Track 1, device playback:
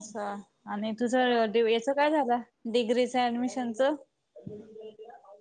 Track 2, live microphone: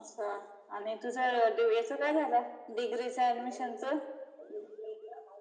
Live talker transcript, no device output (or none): none